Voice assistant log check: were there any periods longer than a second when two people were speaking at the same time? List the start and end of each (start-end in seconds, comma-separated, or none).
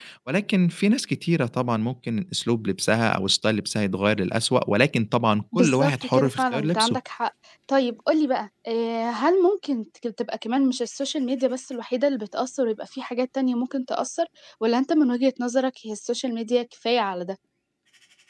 5.5-7.0